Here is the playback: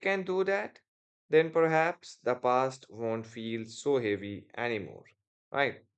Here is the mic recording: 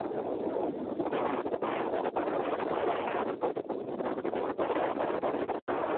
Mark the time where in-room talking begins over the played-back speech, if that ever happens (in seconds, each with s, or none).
none